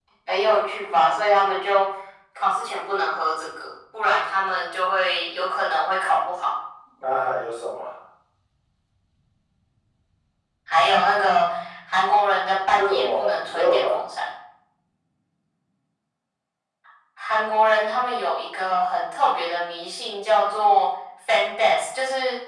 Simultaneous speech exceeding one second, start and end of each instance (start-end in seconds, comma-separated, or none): 12.7-13.9